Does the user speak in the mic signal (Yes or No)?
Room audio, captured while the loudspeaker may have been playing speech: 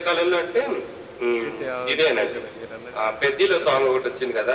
Yes